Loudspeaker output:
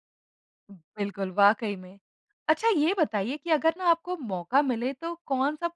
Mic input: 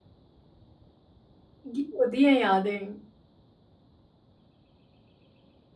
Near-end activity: present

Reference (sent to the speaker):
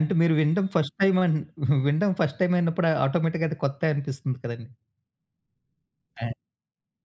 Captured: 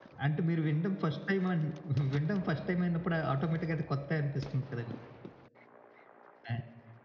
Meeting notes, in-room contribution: none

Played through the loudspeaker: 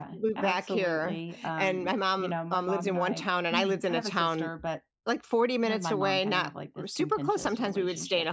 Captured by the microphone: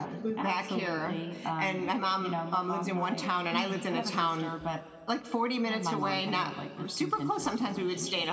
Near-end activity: none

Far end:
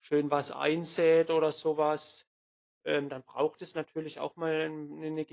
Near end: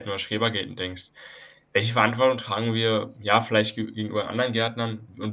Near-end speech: present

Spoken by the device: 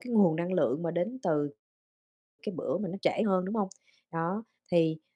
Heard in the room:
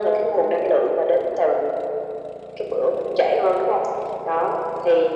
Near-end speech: none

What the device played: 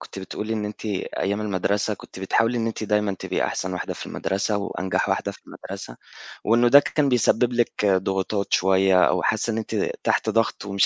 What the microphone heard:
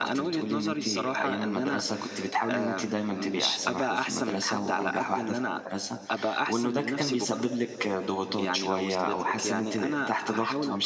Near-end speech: present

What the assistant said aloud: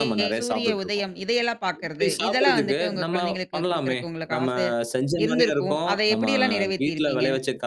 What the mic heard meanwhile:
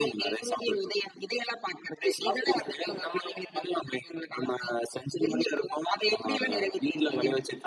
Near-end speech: none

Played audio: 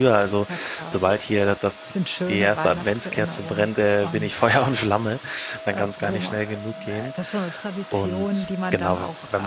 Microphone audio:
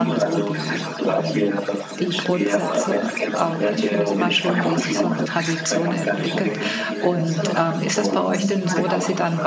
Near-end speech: present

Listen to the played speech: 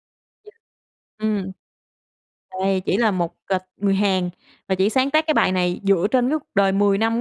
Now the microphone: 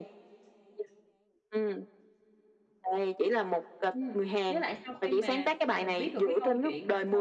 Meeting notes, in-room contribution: present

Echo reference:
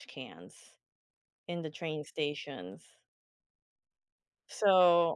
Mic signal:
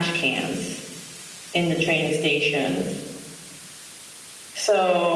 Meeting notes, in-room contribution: none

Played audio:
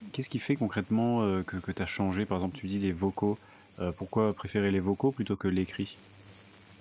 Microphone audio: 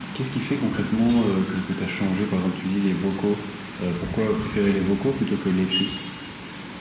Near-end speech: none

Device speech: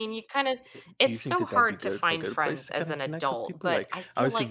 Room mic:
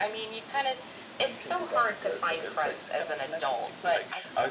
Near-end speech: none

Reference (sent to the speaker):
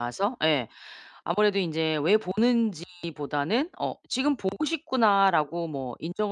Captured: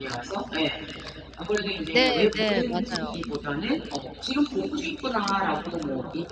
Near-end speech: present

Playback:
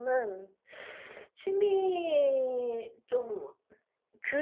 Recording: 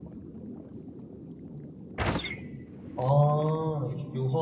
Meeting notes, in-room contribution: present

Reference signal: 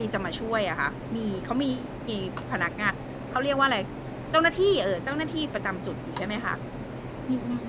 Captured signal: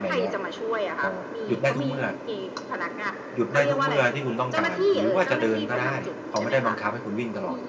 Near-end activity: present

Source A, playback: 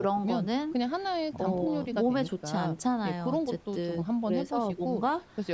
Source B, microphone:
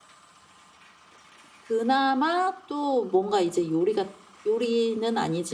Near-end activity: present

